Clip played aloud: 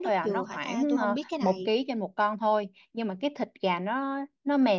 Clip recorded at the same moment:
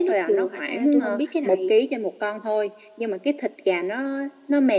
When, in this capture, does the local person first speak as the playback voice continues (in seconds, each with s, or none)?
none